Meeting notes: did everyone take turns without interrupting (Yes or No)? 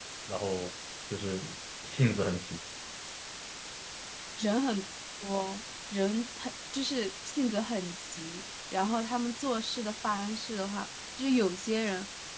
Yes